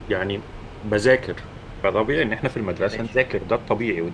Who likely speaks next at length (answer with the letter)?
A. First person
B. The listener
A